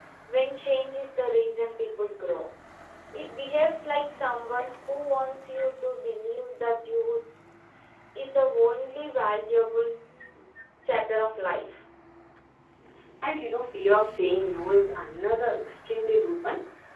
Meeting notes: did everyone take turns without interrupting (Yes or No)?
Yes